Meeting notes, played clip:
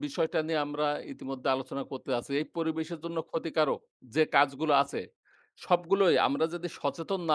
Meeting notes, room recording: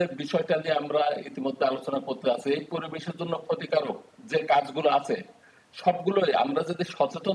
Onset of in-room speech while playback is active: none

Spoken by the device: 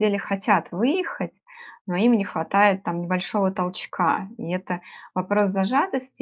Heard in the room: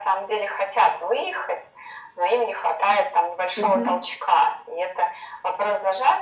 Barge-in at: 3.5 s

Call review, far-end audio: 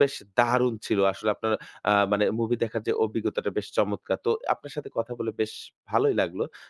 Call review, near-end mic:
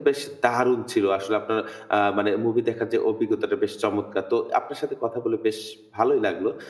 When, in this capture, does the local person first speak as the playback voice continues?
none

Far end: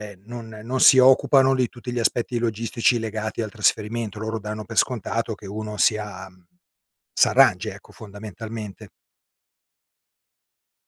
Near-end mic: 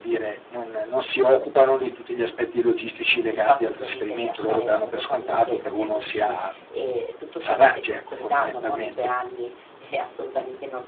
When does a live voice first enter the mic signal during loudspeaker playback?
3.3 s

